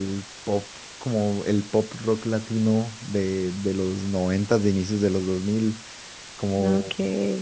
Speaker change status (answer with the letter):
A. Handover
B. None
B